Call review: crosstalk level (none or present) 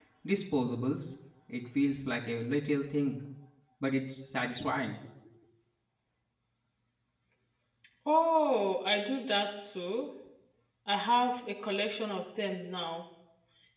none